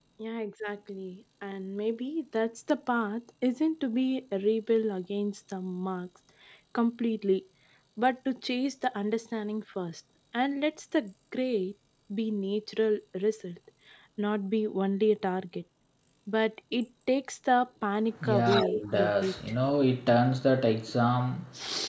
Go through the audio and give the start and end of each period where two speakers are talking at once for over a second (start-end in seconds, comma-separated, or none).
18.2-19.6